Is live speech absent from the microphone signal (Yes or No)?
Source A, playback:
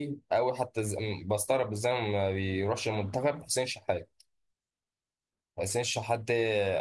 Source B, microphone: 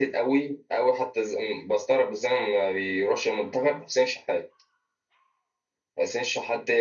Yes